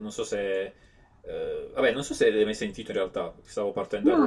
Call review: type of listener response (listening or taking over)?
taking over